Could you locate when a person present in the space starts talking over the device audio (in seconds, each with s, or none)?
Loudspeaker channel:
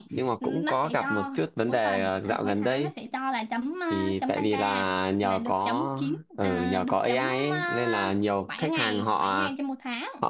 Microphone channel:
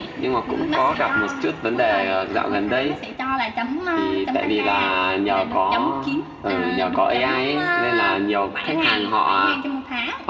none